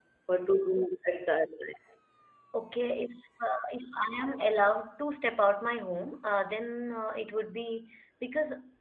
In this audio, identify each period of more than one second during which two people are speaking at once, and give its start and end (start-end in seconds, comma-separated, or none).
none